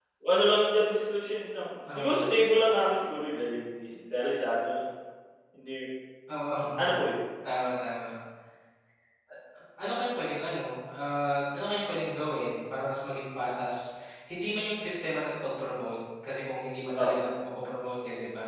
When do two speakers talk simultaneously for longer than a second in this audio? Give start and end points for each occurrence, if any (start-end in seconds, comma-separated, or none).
none